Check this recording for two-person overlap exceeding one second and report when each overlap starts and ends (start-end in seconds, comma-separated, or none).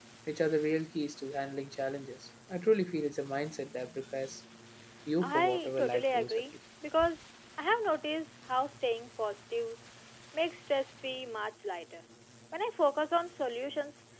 5.2-6.4